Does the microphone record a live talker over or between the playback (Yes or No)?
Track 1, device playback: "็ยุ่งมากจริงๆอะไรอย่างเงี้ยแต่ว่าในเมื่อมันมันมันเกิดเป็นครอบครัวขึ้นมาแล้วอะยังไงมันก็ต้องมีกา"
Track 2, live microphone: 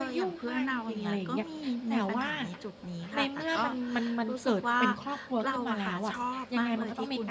Yes